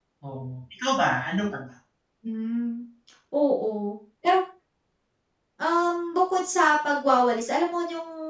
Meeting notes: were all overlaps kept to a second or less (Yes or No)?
Yes